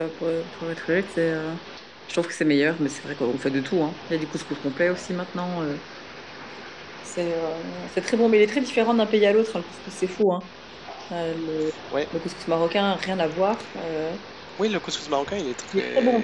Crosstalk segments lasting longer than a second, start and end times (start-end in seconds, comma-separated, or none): none